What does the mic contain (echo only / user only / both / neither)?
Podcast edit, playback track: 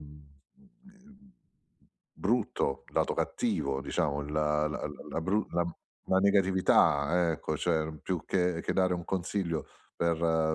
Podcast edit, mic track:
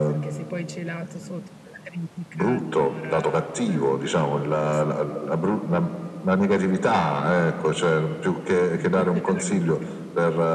both